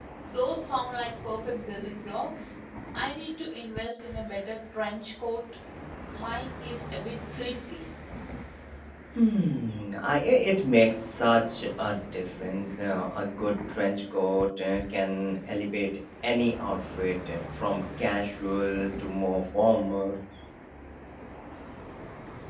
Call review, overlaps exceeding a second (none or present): none